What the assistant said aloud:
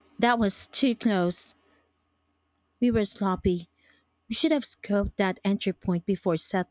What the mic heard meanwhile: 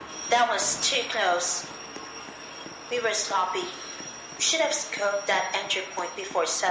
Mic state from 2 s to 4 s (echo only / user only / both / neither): echo only